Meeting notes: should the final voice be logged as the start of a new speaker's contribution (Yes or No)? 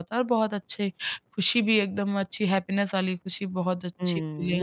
Yes